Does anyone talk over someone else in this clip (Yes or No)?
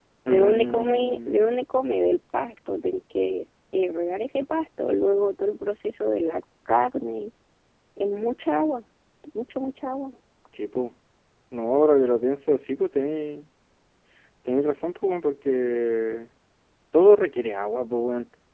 Yes